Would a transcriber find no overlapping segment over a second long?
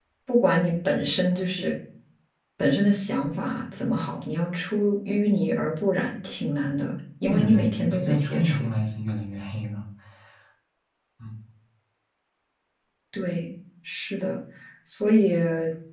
No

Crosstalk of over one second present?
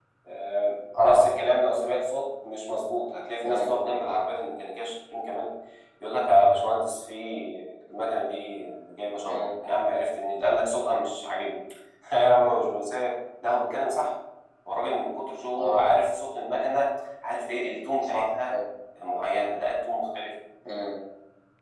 No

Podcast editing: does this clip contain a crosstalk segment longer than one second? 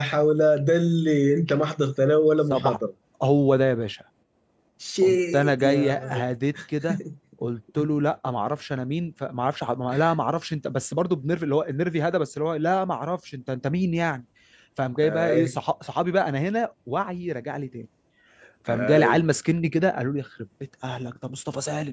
Yes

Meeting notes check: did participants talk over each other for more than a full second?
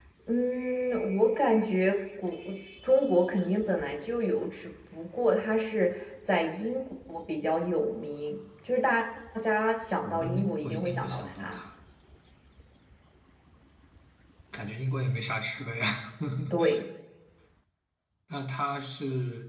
Yes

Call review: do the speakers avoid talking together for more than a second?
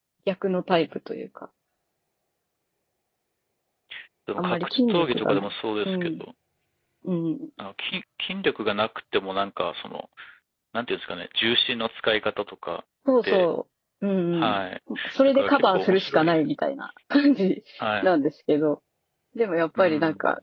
No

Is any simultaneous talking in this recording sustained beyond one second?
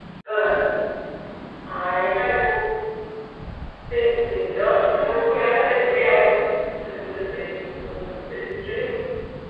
Yes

